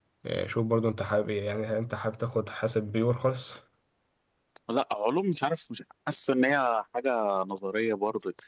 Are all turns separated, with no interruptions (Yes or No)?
Yes